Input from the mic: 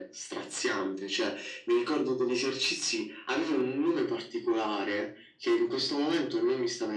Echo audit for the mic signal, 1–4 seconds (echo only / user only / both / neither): echo only